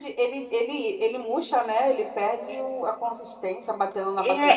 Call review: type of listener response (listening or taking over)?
taking over